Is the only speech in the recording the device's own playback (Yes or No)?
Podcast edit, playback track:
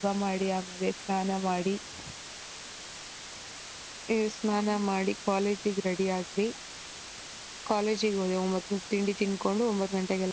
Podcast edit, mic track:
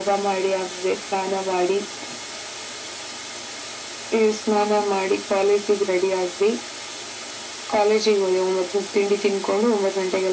Yes